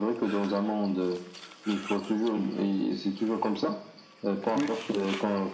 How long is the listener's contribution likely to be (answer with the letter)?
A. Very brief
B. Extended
A